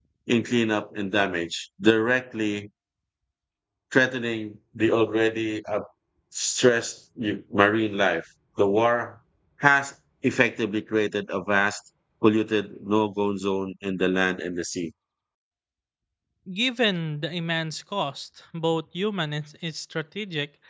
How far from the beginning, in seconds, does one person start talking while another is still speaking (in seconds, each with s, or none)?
none